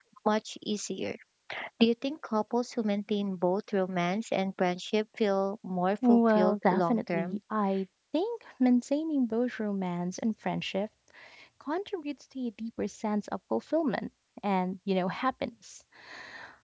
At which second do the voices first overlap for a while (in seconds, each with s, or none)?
6.0 s